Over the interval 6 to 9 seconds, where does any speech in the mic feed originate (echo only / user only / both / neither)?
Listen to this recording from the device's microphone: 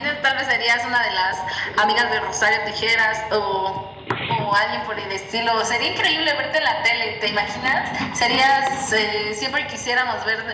echo only